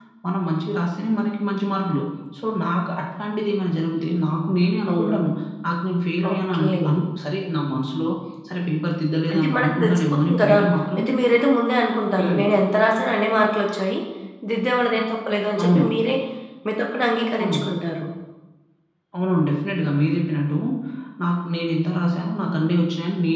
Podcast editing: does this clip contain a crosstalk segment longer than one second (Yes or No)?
Yes